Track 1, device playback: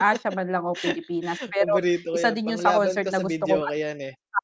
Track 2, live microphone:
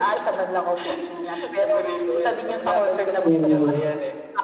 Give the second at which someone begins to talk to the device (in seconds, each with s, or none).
3.2 s